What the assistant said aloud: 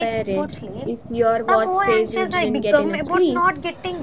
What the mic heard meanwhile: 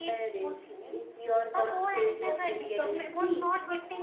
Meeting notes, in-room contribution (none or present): present